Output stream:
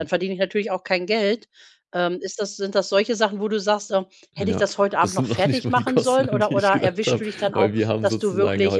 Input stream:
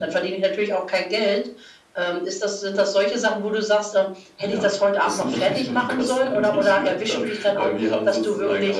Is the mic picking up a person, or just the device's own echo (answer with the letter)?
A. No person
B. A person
A